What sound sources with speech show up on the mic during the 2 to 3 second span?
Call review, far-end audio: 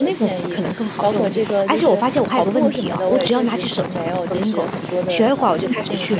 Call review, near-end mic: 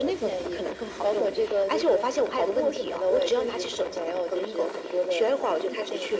echo only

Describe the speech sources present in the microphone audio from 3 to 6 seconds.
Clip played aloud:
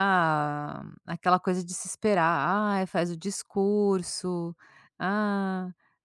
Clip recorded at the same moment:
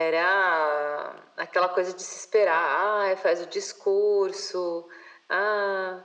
echo only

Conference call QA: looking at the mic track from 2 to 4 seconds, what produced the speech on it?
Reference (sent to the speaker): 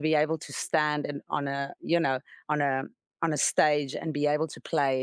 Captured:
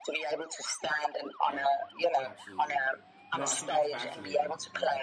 both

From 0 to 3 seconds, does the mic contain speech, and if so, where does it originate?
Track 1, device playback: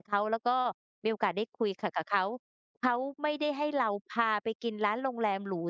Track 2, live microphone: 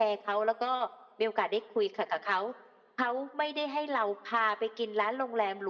echo only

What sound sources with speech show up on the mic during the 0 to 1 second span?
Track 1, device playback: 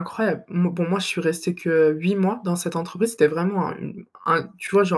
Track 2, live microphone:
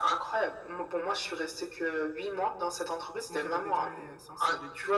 echo only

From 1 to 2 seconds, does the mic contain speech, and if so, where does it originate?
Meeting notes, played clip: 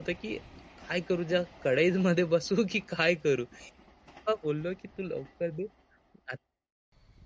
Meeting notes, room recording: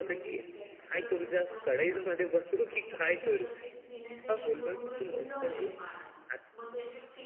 both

